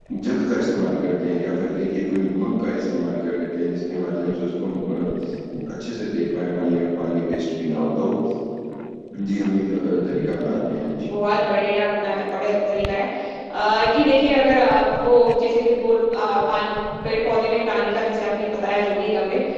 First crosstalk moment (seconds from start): none

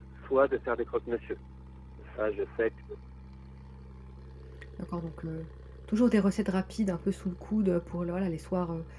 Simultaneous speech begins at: none

